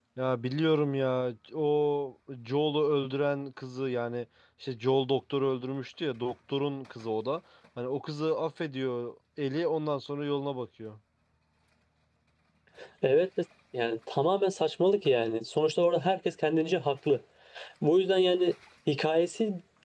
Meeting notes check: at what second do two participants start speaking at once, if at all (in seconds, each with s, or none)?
none